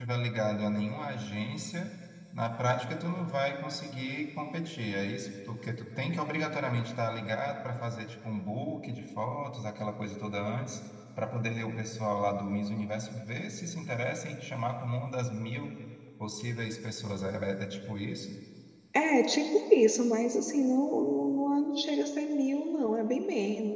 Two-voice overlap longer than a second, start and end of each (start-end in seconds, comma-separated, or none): none